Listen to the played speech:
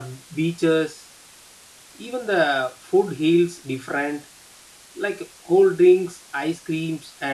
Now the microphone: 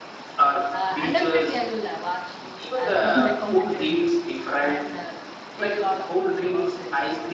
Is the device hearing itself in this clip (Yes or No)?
Yes